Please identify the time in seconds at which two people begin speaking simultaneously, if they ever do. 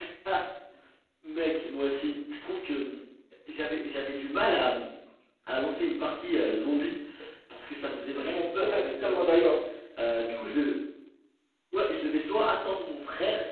8 s

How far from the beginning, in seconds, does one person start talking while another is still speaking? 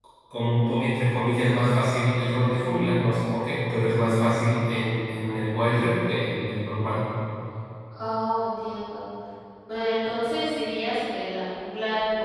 none

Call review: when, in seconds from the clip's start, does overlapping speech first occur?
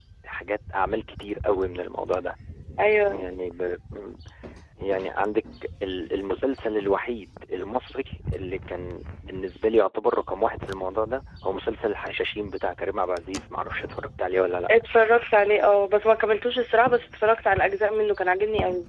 none

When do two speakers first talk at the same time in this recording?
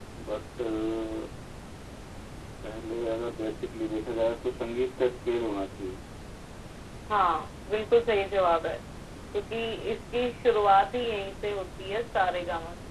none

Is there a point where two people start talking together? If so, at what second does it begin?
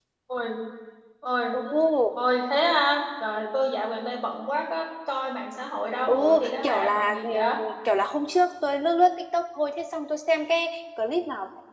6 s

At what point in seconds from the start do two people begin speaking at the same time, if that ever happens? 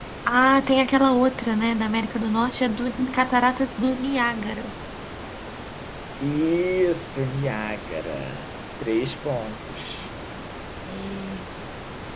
none

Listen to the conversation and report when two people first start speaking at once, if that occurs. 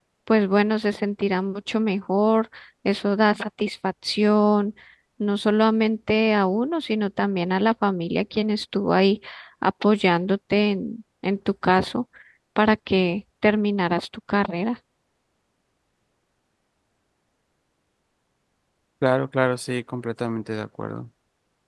none

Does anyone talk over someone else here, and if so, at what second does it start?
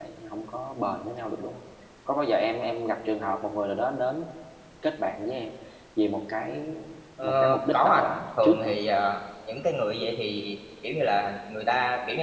7 s

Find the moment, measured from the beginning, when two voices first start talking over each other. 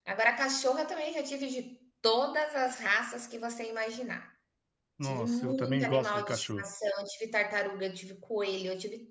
5 s

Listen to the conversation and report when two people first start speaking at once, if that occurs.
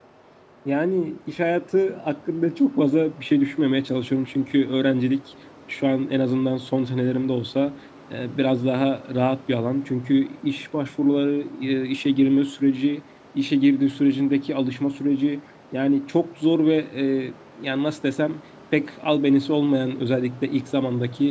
none

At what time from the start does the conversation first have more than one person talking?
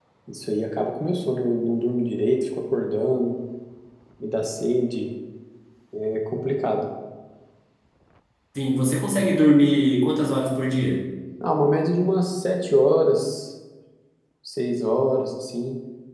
none

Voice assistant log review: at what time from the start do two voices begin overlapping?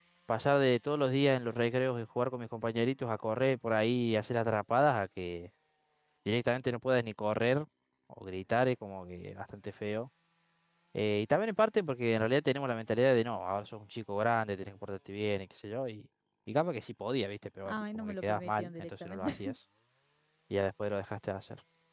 18 s

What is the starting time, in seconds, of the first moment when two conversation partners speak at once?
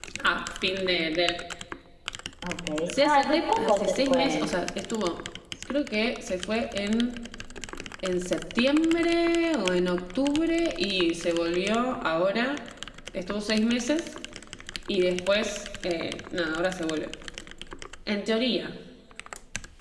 3 s

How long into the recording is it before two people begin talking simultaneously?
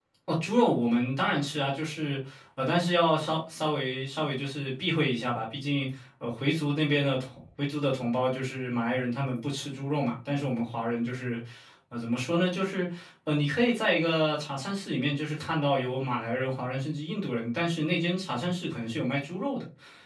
none

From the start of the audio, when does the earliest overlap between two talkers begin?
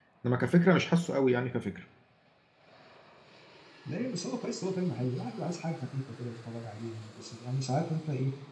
none

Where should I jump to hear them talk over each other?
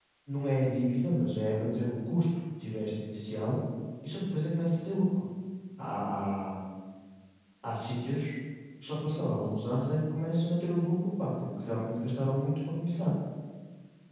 none

